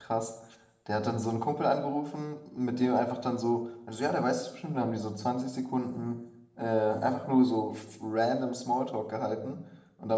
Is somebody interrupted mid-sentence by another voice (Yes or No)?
No